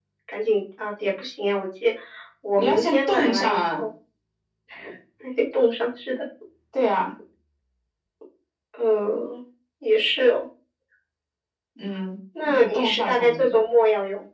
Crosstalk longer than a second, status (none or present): present